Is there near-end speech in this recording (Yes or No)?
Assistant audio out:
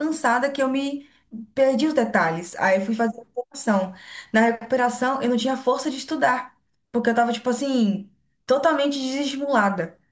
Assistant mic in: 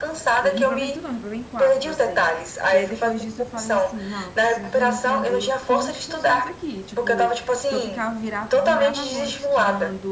Yes